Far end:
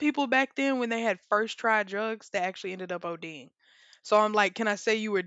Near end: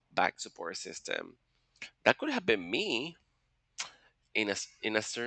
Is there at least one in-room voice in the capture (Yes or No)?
Yes